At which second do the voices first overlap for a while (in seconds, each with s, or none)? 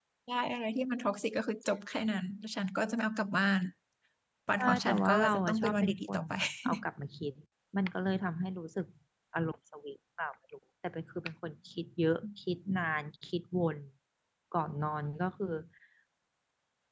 4.6 s